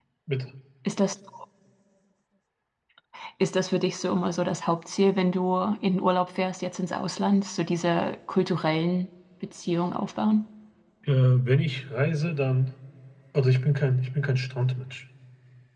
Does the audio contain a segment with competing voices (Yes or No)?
No